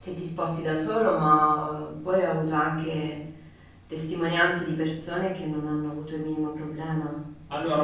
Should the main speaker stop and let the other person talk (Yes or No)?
Yes